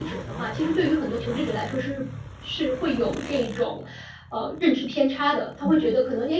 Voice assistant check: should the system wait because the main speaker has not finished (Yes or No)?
Yes